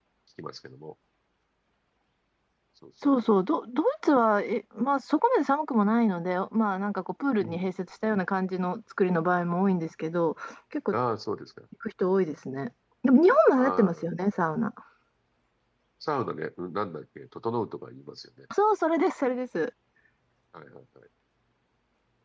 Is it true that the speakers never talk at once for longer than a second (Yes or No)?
Yes